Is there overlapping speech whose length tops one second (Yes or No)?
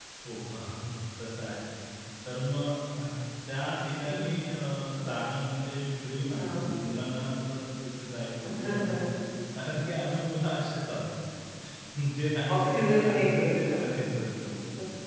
Yes